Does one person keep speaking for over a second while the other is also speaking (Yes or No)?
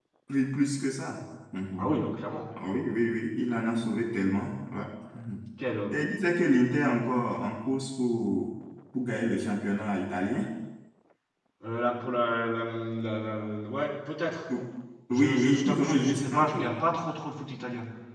Yes